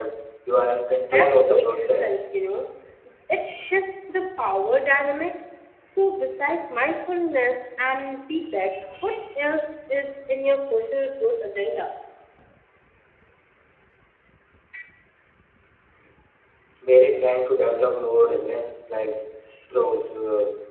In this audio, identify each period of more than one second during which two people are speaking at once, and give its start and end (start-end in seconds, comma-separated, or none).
1.0-2.2